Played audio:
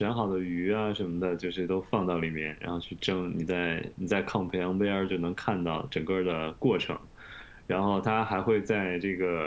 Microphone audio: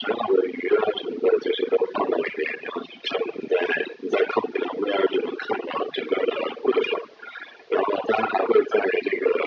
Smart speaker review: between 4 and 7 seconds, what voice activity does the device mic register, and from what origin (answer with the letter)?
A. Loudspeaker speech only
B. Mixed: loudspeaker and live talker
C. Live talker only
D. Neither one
A